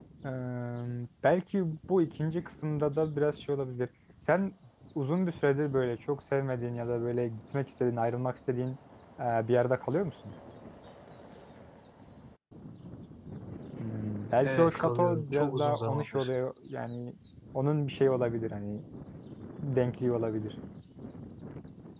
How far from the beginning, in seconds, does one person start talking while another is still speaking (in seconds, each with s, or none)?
14.4 s